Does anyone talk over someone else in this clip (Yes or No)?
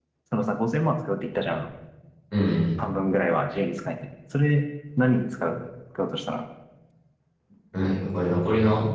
No